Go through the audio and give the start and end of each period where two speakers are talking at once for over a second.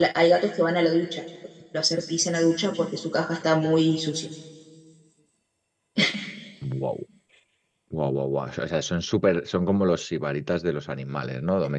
none

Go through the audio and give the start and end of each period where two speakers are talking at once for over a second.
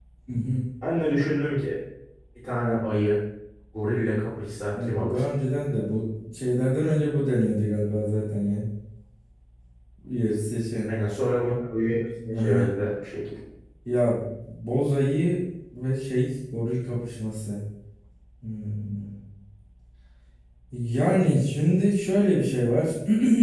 none

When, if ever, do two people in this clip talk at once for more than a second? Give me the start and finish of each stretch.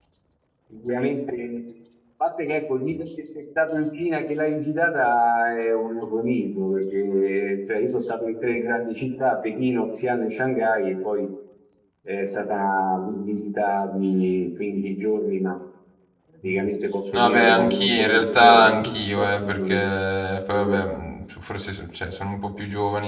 17.1-19.8

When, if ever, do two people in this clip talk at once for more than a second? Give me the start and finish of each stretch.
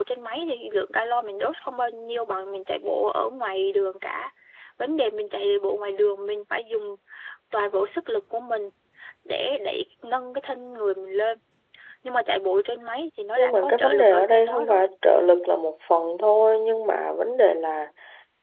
13.4-14.8

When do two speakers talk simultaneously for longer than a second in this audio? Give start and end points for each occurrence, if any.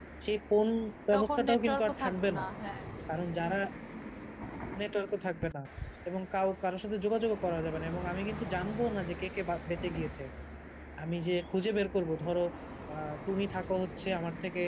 1.1-2.4

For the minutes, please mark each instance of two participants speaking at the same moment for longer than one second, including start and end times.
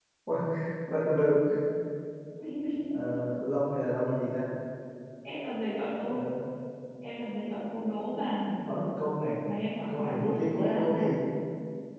9.9-11.1

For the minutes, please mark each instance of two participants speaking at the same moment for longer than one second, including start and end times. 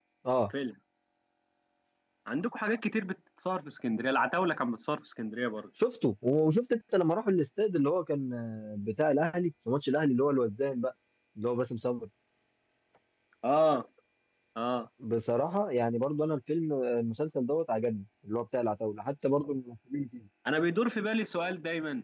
none

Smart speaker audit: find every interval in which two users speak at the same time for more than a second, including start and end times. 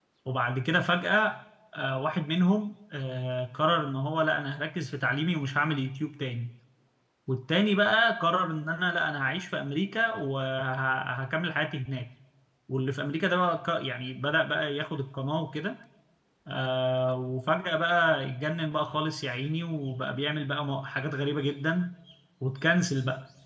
none

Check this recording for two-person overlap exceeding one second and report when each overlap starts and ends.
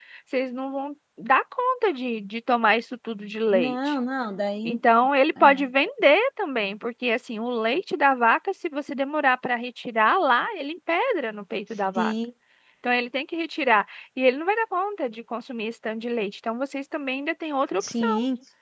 none

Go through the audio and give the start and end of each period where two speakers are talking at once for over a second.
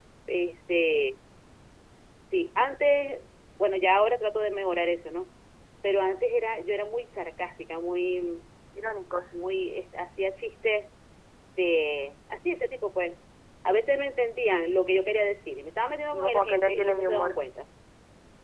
16.1-17.4

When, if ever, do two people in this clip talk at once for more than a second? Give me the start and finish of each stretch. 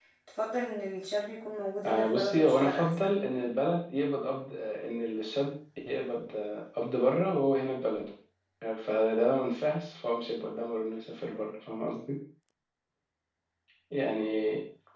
1.9-3.2

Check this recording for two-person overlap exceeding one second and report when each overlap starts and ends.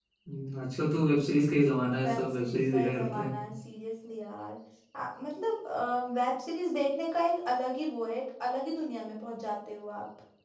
2.0-3.3

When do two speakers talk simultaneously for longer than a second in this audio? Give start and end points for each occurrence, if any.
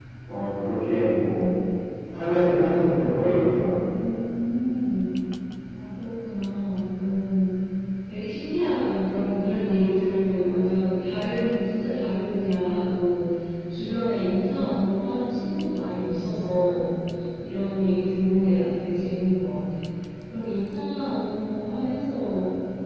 none

